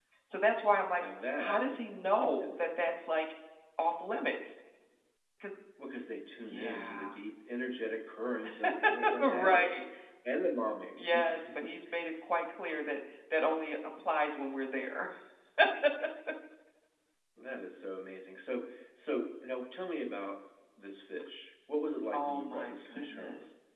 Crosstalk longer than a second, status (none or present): present